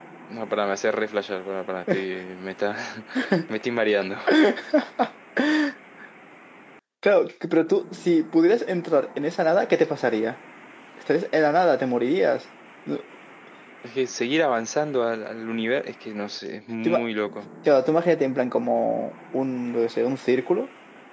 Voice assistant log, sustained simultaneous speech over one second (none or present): none